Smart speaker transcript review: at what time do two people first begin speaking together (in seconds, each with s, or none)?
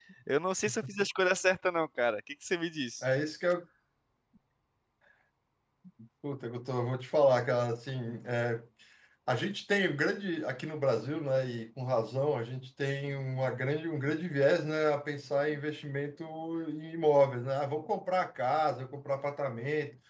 none